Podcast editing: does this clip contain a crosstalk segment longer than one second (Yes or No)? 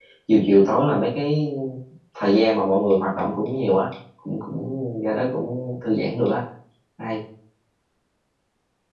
No